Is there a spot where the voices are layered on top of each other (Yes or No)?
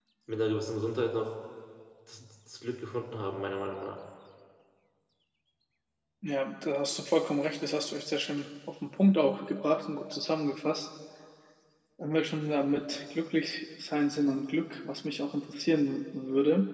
No